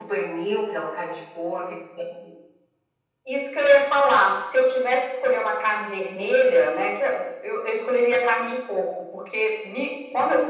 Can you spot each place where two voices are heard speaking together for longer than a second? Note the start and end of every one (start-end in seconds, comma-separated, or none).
none